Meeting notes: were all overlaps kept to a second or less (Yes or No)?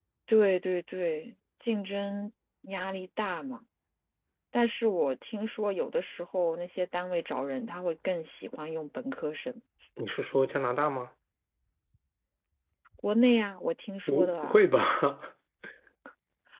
Yes